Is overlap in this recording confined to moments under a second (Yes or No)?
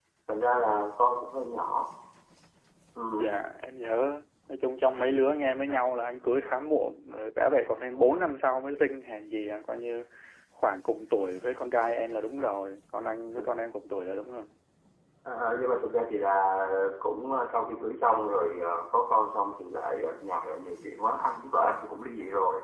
Yes